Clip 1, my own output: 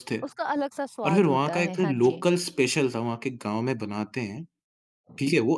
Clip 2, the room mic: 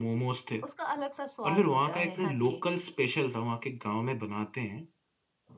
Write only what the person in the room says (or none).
none